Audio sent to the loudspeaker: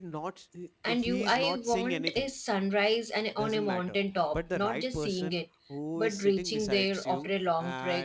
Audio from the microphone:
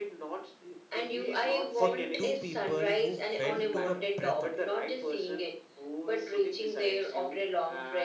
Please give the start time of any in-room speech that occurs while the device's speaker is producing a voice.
1.8 s

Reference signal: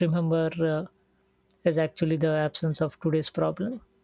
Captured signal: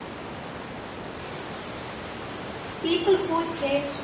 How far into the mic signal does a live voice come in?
2.8 s

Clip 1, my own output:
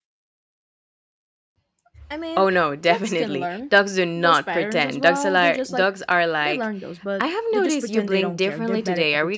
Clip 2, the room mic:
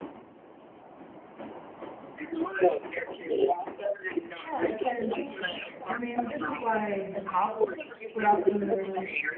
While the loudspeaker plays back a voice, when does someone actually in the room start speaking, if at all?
4.4 s

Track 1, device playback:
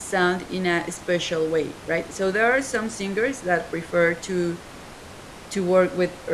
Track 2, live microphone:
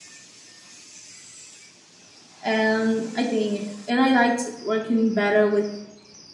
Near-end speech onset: 2.4 s

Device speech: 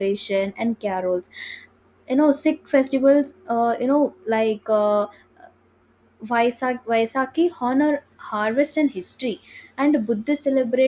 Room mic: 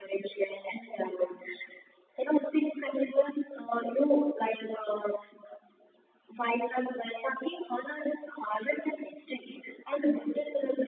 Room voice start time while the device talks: none

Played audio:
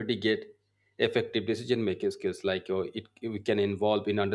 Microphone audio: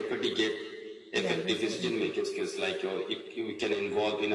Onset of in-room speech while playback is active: 1.1 s

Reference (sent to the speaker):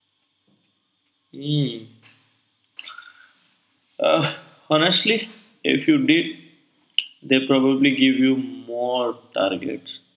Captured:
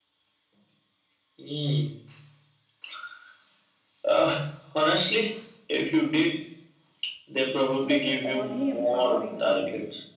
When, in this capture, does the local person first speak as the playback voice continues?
7.8 s

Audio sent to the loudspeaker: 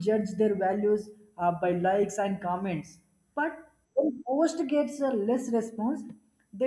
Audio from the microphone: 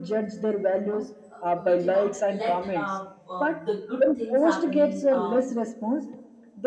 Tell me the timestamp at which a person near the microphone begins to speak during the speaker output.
0.8 s

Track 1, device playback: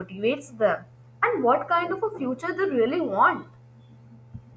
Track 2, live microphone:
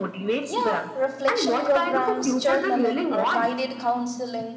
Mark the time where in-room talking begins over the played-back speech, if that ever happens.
0.4 s

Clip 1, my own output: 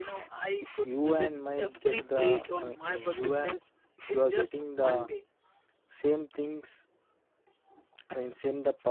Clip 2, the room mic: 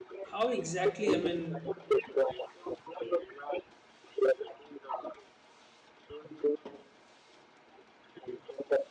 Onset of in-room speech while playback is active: 0.3 s

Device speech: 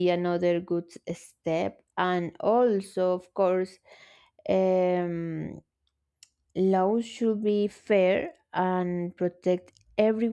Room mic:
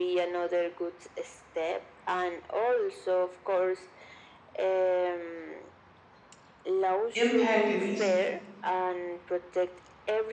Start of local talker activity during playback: 7.1 s

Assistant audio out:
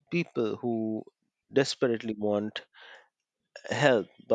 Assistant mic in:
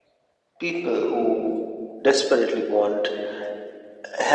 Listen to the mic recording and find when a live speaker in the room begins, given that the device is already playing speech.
none

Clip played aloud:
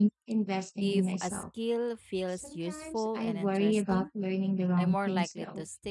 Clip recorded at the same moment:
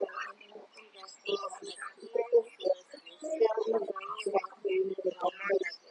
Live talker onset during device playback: none

